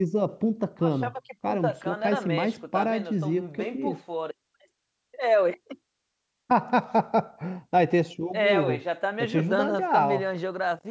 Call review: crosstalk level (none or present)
present